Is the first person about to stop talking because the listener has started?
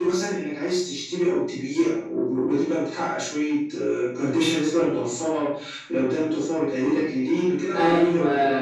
Yes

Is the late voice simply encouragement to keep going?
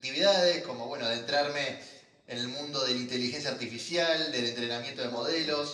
Yes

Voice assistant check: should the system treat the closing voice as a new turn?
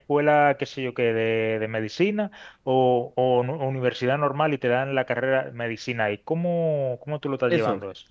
Yes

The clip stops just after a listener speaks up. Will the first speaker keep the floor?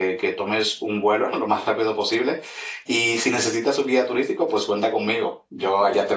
No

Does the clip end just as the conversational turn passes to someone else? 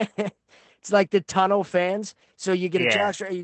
No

